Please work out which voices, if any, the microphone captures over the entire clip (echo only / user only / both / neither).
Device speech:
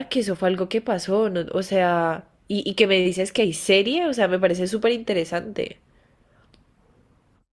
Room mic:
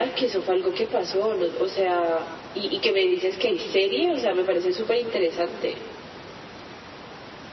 echo only